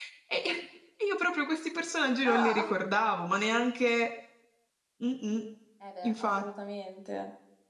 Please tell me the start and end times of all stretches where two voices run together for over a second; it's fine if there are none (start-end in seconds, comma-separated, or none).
none